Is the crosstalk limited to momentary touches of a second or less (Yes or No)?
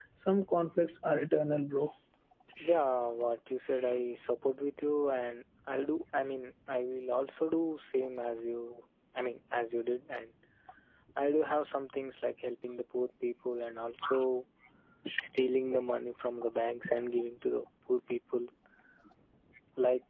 Yes